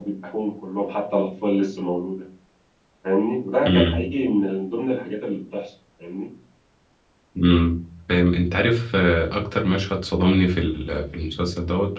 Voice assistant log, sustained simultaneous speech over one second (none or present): none